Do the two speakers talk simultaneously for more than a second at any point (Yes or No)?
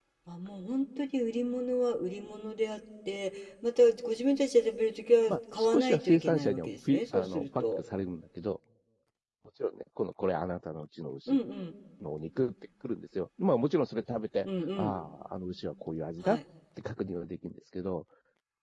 Yes